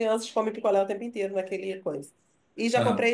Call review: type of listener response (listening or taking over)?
listening